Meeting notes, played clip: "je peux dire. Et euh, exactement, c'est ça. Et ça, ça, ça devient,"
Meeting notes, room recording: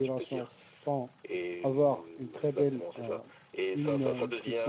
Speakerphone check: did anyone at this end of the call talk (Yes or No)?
Yes